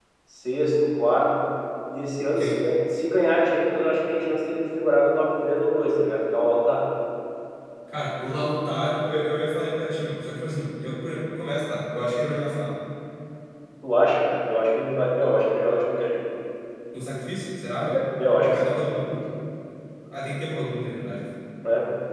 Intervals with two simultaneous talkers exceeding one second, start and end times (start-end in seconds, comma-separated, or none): none